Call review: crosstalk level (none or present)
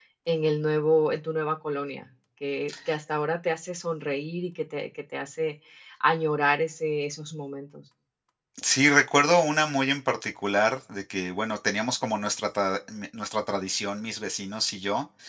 none